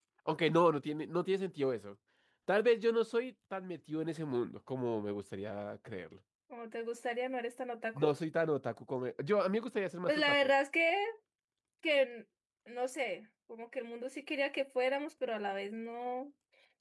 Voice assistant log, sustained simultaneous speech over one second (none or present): none